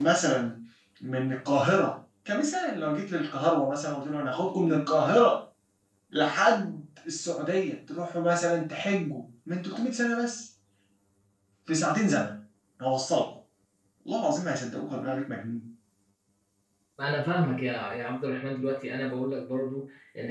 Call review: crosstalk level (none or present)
none